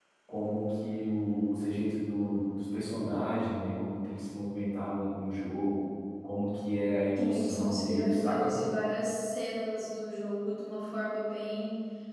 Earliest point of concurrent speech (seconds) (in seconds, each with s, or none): 7.2 s